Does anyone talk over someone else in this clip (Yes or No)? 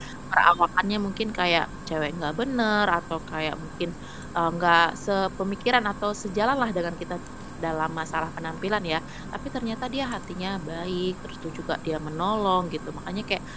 No